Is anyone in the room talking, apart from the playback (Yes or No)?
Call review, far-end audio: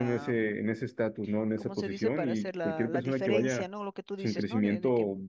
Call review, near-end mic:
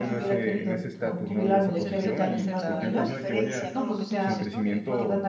Yes